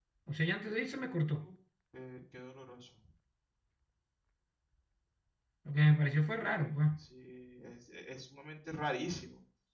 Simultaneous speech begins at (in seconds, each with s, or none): none